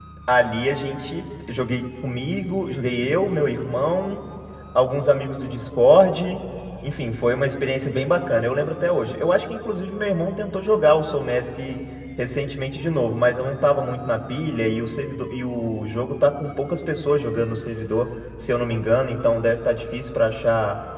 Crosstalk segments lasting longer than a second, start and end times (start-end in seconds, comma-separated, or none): none